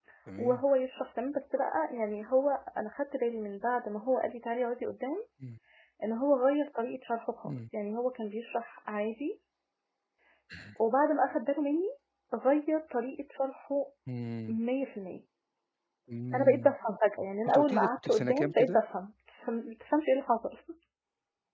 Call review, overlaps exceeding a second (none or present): present